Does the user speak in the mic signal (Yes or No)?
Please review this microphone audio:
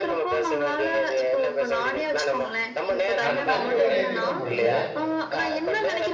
Yes